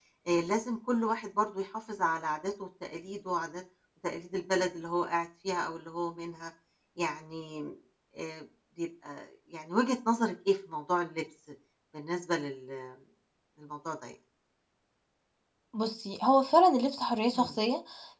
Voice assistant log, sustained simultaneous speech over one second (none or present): none